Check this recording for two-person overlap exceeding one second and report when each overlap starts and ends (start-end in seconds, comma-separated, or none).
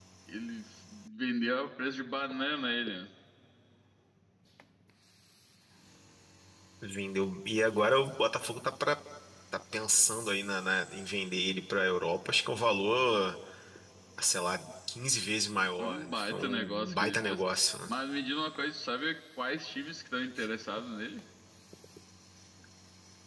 15.8-17.4